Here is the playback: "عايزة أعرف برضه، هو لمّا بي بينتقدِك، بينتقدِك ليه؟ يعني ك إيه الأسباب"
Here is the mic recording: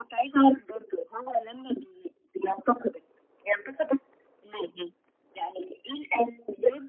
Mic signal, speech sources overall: both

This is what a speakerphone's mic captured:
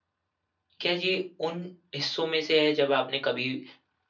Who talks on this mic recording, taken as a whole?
user only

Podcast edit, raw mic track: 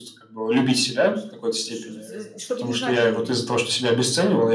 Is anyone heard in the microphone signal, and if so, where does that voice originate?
both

